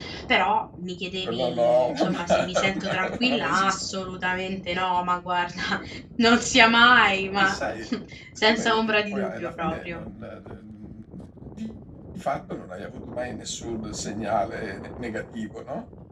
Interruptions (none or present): present